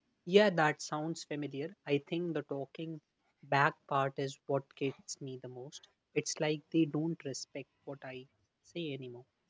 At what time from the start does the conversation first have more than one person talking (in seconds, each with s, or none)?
none